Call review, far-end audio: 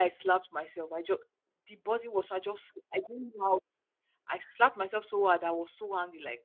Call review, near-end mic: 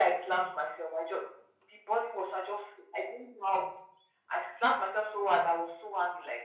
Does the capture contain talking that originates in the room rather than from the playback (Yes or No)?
No